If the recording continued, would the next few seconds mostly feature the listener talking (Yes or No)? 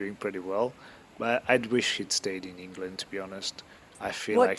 Yes